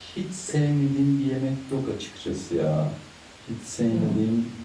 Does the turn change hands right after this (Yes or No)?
No